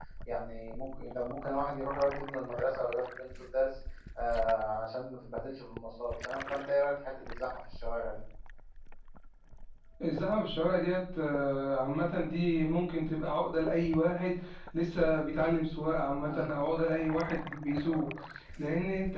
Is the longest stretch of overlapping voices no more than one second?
Yes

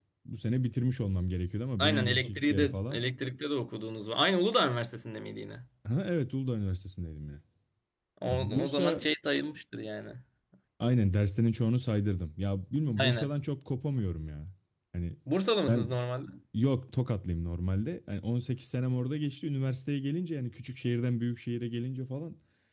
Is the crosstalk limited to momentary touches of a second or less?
No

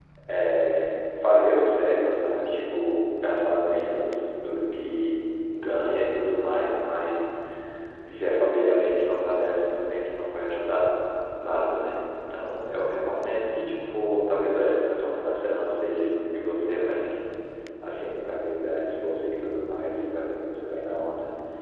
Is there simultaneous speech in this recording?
No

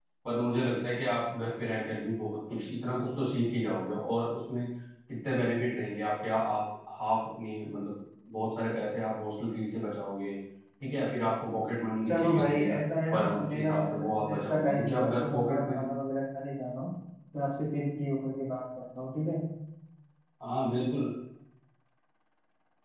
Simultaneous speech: Yes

